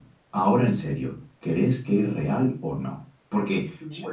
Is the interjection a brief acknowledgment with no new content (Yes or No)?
Yes